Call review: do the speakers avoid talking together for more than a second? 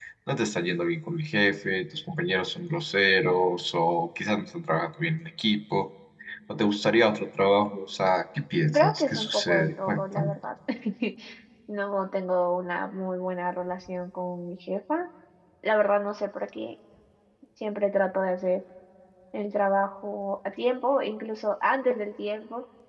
No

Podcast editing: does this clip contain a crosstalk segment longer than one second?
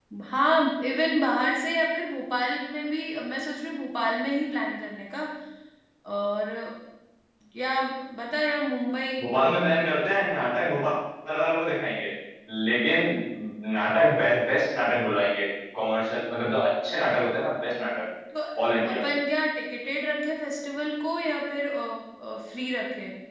No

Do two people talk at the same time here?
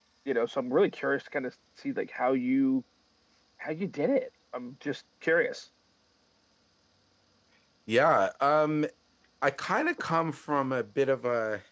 No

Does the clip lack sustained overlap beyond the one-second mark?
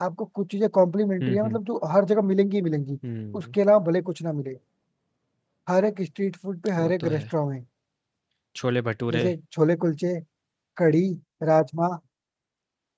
Yes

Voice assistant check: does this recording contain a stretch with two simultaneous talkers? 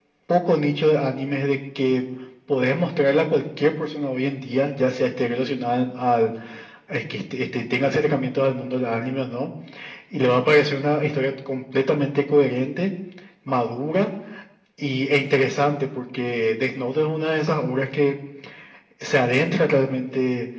No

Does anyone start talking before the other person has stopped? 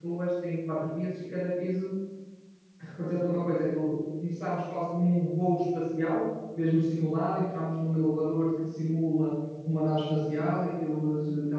No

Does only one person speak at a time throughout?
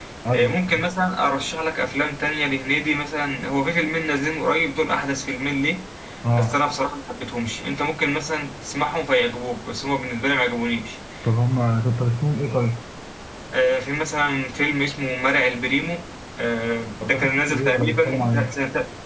No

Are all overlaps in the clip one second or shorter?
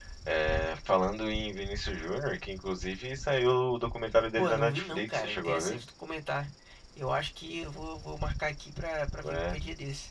No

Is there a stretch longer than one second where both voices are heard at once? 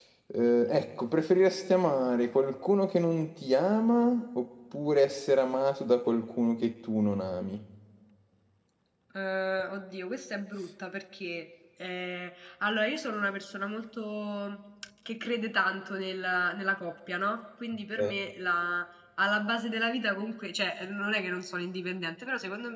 No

